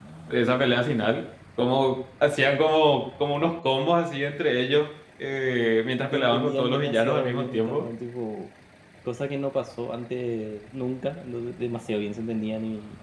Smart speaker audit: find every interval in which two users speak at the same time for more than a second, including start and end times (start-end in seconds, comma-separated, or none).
6.1-7.8